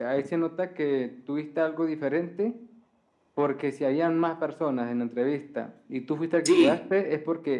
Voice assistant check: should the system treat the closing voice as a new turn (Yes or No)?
No